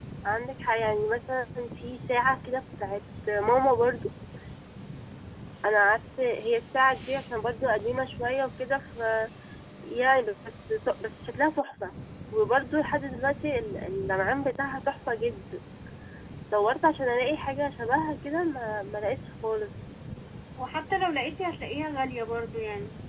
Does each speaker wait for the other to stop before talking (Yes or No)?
Yes